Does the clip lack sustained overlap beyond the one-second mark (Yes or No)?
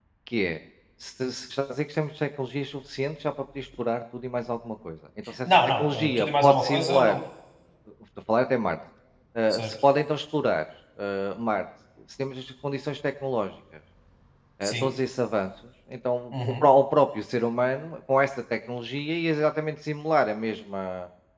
No